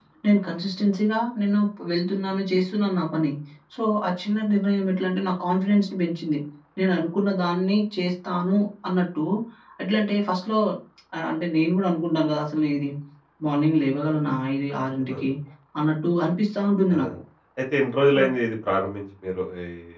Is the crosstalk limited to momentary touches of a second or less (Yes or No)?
Yes